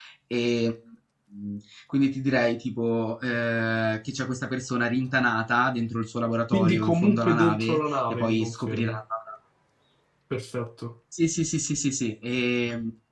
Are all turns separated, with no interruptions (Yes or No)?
No